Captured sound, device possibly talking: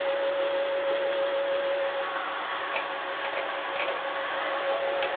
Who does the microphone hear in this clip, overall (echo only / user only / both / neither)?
neither